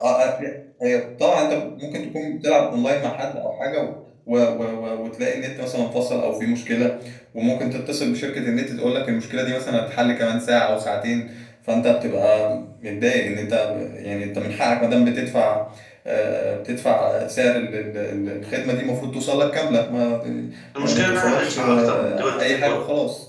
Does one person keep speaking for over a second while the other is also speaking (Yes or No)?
Yes